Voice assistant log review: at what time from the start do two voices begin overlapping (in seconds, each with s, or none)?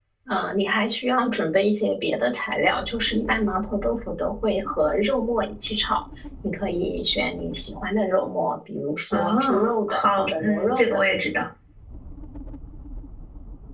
9.1 s